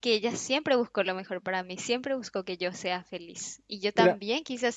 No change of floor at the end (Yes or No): Yes